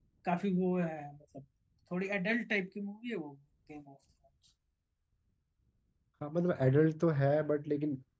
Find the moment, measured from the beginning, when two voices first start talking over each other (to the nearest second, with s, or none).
none